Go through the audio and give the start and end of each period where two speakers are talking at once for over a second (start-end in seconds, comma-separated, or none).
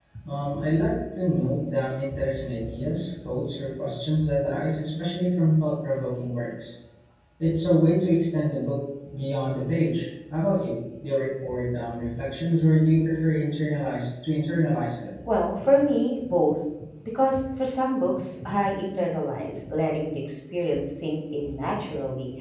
none